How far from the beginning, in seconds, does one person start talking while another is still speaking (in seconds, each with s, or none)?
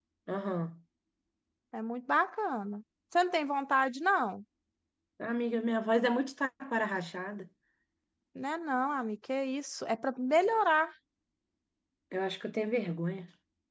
none